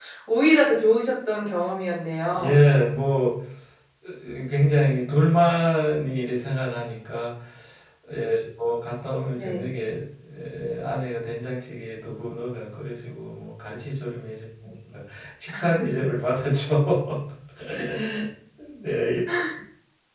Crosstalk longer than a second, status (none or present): none